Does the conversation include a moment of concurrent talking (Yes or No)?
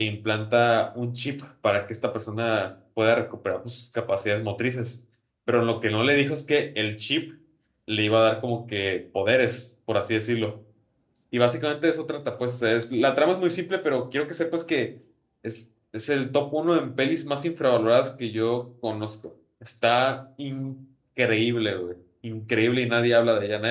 No